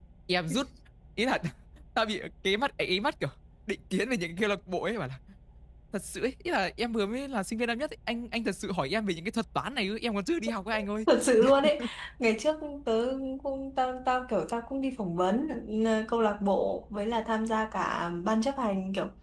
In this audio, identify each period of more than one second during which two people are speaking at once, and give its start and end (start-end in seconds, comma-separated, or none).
none